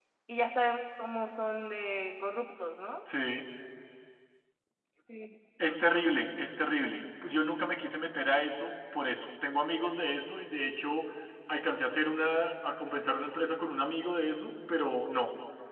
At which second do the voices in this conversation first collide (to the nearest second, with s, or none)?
none